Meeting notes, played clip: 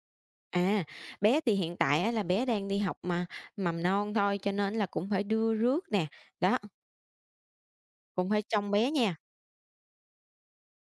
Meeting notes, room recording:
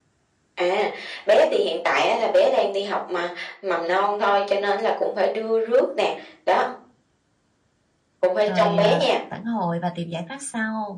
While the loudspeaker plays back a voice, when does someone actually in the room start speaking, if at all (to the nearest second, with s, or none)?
8 s